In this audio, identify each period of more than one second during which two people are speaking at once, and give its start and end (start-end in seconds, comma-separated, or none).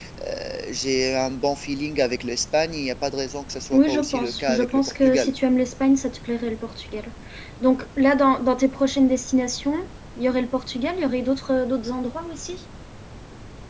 3.7-5.3